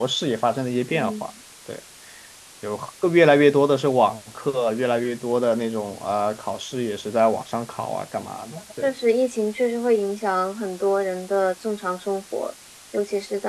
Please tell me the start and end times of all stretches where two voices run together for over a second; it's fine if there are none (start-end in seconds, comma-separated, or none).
none